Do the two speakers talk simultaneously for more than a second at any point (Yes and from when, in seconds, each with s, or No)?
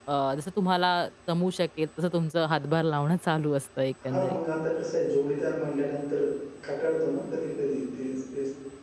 No